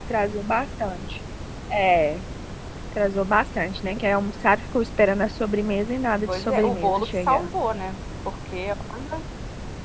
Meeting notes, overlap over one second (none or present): present